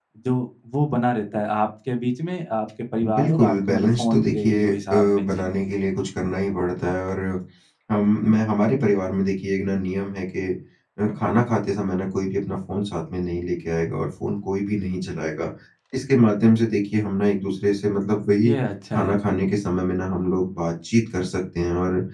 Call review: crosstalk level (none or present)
present